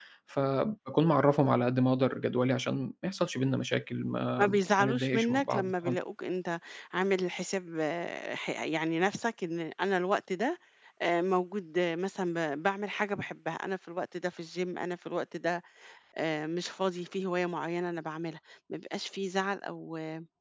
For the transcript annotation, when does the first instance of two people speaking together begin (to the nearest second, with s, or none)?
4 s